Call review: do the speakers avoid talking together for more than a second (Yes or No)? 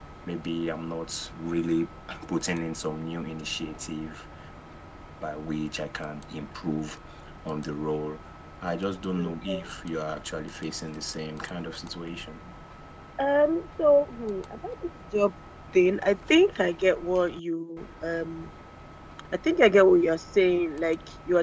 Yes